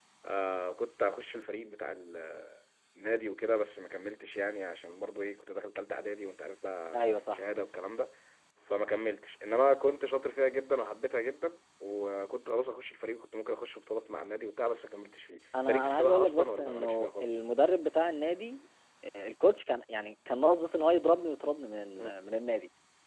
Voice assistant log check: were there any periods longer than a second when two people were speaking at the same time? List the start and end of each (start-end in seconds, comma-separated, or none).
15.6-17.3